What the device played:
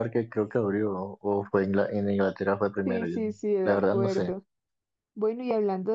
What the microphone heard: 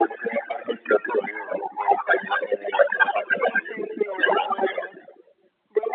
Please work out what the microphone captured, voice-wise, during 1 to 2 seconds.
echo only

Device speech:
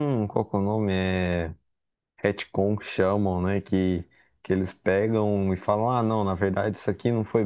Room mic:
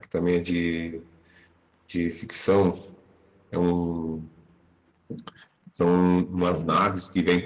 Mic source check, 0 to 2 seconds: user only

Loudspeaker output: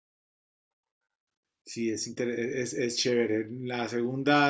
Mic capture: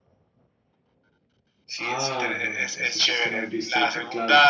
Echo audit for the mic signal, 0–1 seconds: neither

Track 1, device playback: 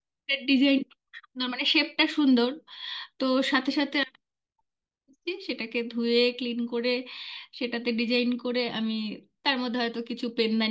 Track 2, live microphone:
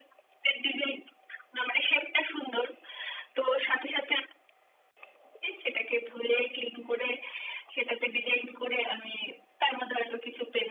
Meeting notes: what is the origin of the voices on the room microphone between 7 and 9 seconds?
echo only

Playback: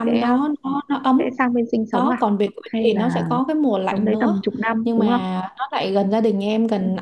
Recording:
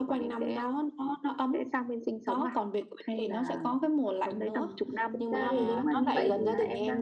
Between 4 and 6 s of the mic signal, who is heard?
both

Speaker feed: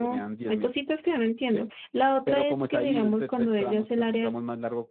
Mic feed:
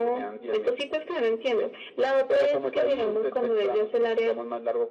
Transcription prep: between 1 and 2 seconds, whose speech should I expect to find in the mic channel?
echo only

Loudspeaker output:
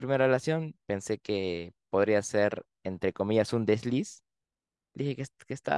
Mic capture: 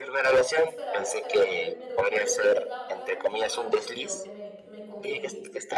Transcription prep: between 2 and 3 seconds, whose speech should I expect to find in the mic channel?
both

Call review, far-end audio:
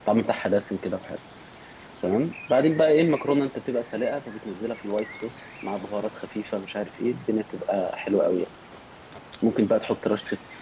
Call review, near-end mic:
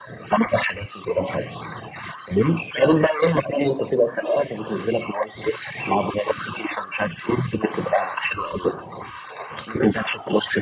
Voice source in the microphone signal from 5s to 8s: echo only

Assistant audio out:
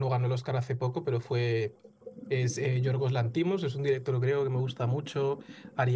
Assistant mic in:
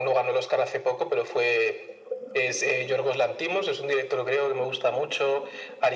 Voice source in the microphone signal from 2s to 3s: echo only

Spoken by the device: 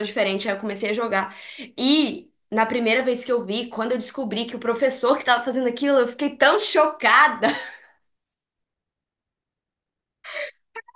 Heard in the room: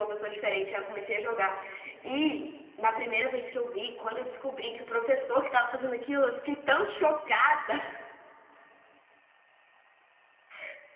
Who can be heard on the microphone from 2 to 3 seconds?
echo only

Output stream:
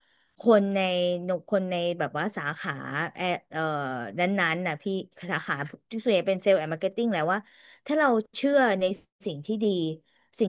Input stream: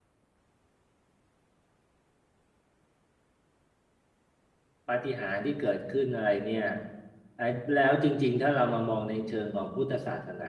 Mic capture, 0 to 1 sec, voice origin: neither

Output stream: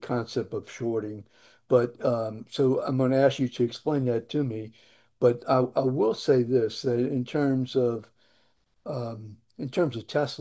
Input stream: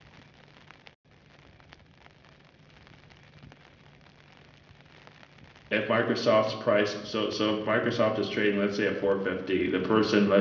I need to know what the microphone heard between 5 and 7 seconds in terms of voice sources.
user only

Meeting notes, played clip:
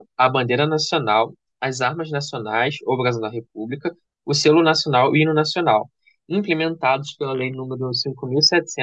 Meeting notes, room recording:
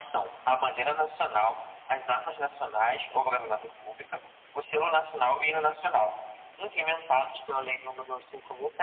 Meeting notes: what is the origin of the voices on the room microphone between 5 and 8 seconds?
echo only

